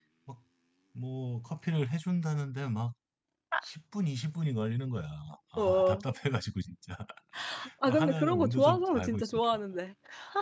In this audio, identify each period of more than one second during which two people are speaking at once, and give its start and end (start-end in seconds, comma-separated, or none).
7.9-9.4